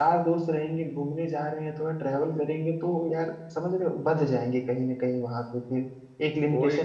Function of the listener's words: taking over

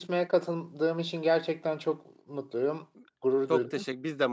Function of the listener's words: taking over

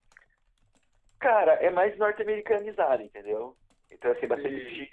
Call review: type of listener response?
listening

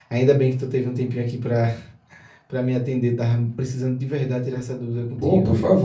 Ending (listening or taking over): taking over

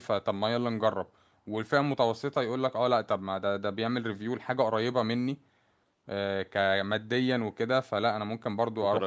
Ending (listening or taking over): taking over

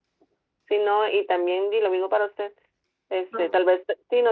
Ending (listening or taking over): listening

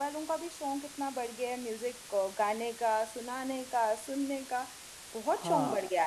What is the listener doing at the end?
taking over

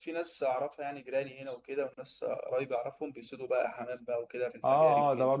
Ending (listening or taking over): taking over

